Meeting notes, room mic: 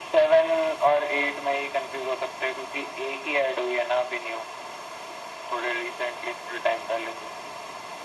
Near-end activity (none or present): none